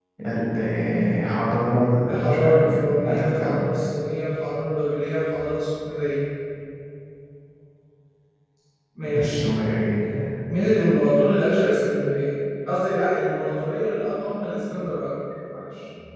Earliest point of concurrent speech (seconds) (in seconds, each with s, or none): 2.1 s